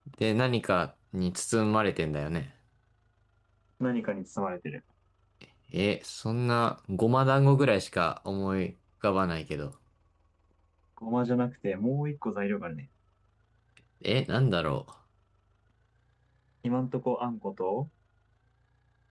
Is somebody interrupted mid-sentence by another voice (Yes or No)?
No